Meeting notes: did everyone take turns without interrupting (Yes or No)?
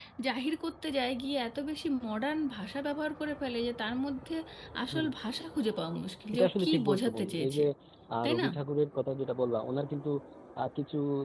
No